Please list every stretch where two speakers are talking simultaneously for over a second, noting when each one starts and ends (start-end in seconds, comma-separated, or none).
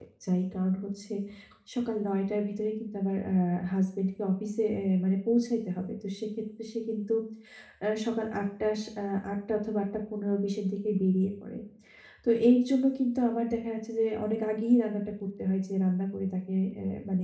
none